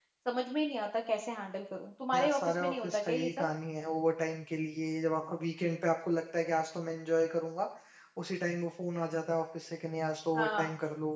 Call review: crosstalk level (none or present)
present